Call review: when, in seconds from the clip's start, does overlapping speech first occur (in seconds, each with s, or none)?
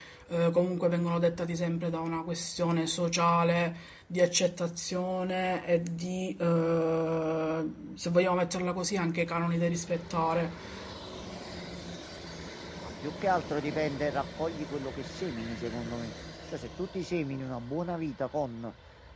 none